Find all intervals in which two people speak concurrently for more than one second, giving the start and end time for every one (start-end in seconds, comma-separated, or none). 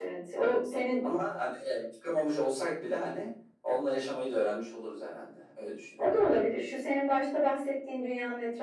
none